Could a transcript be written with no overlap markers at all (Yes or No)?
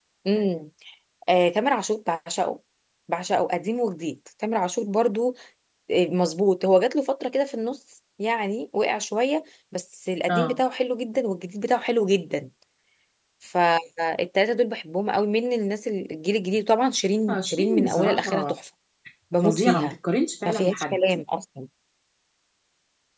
No